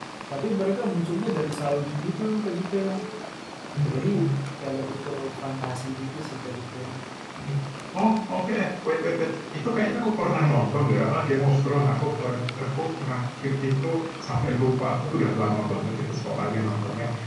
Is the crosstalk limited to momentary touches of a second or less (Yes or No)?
Yes